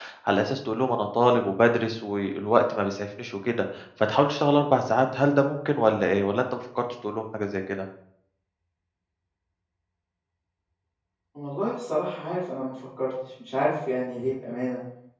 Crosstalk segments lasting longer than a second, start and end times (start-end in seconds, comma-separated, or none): none